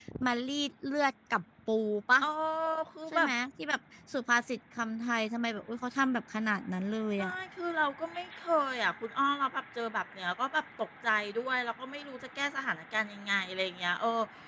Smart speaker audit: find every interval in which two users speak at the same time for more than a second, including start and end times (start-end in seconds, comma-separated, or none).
none